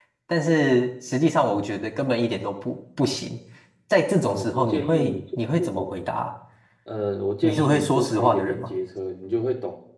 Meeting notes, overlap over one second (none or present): present